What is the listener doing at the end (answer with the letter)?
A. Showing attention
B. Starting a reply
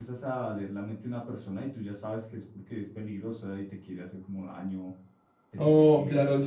B